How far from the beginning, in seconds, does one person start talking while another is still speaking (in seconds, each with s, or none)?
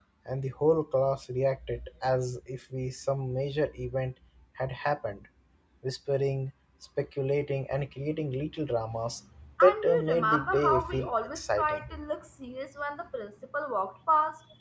9.6 s